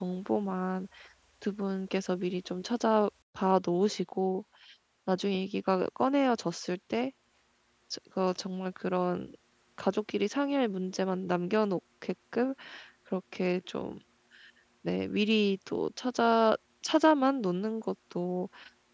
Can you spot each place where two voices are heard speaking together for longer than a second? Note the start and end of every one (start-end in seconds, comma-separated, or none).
none